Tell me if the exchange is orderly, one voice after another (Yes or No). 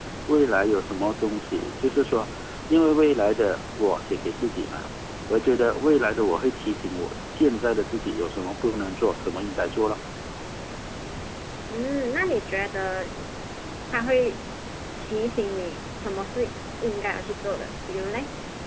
Yes